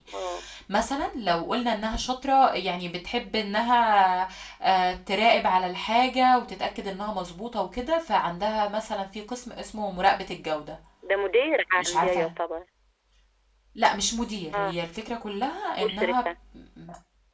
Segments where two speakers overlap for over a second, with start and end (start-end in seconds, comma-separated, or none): none